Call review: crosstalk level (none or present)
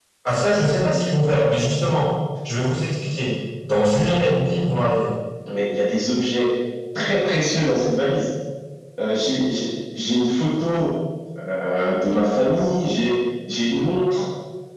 none